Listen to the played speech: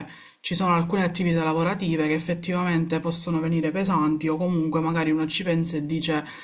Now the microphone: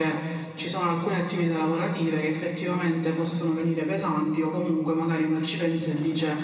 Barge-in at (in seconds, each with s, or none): none